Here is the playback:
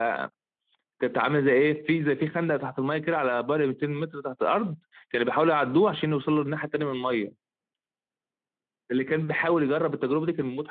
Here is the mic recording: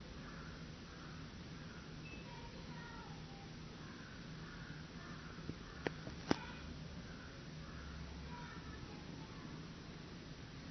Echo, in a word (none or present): none